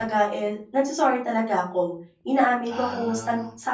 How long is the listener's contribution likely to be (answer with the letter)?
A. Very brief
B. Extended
A